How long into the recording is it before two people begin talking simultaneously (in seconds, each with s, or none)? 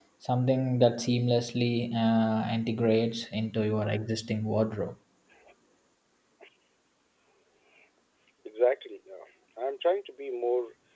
none